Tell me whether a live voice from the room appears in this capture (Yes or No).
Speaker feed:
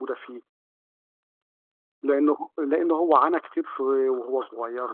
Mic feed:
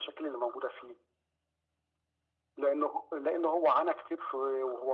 No